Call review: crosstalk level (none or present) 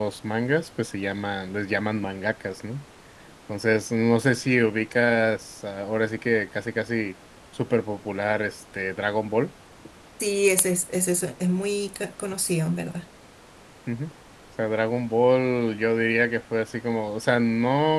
none